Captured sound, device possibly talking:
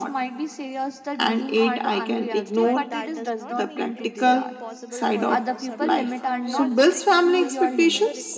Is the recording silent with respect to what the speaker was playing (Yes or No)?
No